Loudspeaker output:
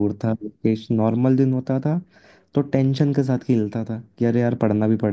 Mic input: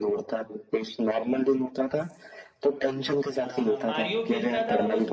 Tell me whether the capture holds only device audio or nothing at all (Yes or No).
No